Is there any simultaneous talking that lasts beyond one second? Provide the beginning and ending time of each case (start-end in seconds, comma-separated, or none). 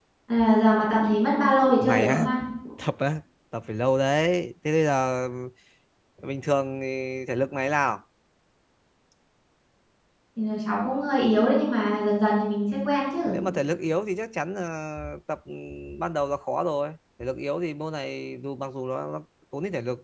none